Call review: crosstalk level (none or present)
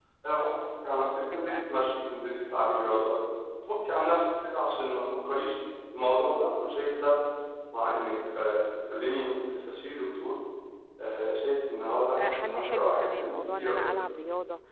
present